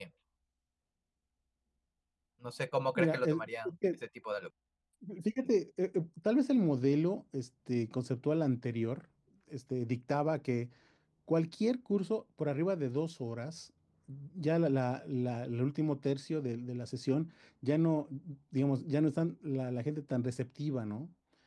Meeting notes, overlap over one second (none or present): none